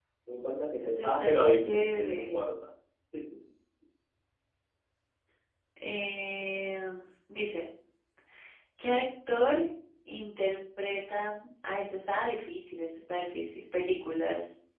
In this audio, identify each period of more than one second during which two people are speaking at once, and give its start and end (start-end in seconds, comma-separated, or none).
0.8-2.4